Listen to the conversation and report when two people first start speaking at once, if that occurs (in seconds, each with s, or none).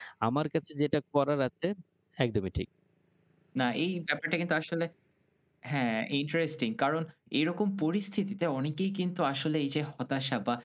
none